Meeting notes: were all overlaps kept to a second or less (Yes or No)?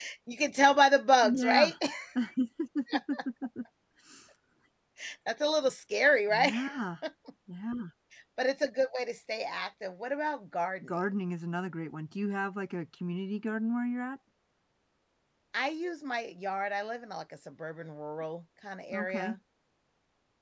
Yes